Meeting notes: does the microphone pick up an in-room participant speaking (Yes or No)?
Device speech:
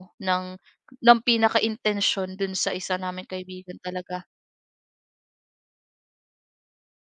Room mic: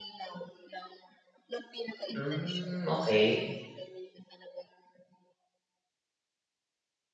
Yes